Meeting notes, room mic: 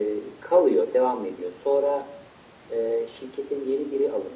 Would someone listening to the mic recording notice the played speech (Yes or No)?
Yes